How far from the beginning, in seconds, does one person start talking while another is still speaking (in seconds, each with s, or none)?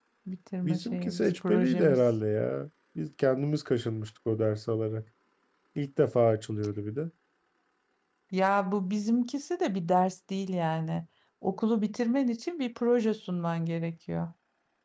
0.7 s